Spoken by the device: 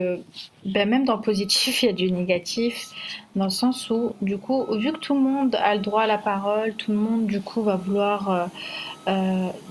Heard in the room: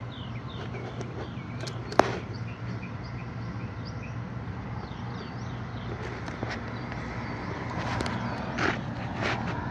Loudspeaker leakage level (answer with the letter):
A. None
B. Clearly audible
A